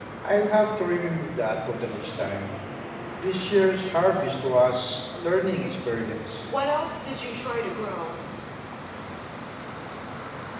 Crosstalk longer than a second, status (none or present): none